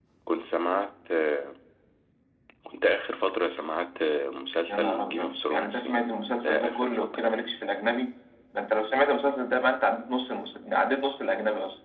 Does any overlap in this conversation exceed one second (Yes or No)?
Yes